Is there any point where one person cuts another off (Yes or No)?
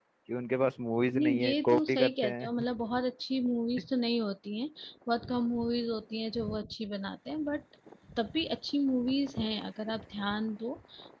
Yes